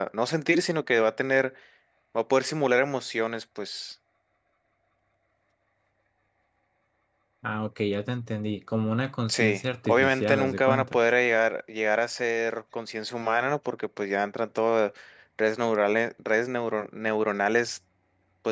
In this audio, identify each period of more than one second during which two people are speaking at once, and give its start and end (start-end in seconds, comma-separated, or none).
9.3-11.0